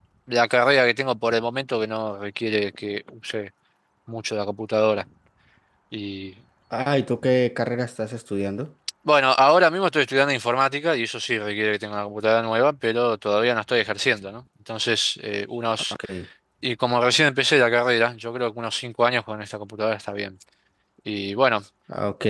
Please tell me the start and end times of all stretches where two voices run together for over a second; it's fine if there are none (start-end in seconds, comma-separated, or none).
none